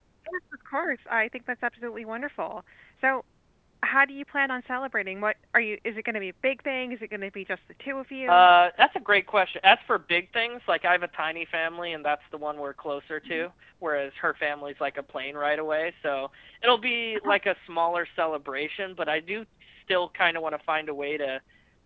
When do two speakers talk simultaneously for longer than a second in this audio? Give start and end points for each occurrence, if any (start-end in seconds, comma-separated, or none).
none